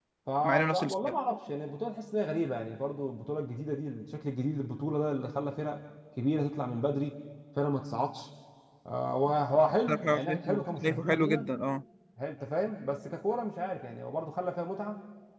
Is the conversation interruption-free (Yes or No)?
No